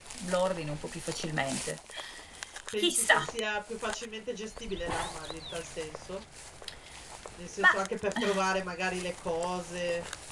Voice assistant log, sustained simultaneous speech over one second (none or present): none